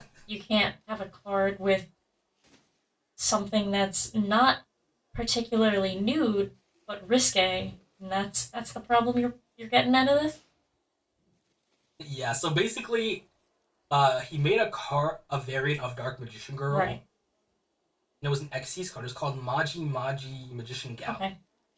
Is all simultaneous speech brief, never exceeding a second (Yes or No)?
Yes